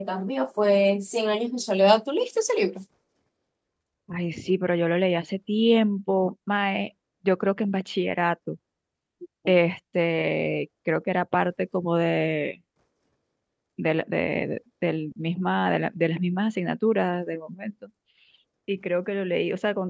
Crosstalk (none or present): none